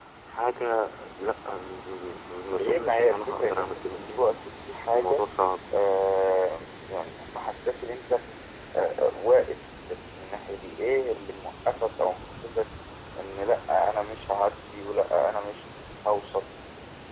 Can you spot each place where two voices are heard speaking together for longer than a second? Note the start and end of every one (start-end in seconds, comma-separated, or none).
2.6-4.3